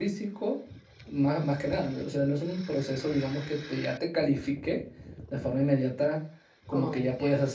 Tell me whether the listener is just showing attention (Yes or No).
Yes